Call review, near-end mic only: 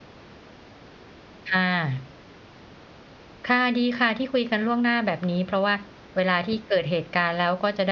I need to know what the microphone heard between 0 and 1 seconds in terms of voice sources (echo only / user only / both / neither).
neither